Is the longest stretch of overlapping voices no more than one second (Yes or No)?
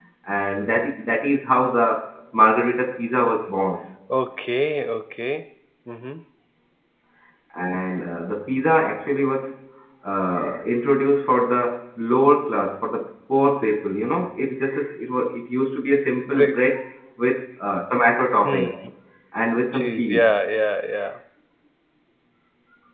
Yes